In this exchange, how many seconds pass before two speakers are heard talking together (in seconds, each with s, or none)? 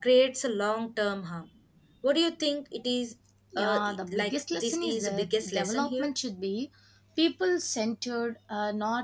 3.5 s